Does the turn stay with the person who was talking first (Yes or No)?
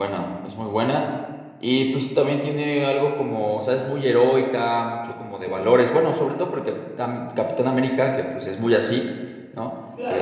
No